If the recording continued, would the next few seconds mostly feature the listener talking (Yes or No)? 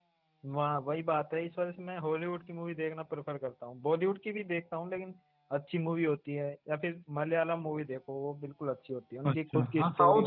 Yes